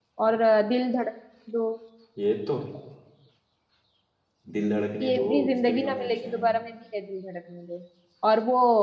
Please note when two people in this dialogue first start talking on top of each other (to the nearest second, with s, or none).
5 s